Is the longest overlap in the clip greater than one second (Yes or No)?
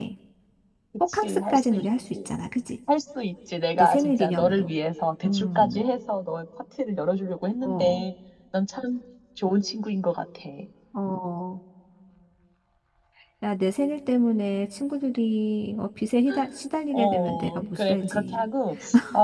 Yes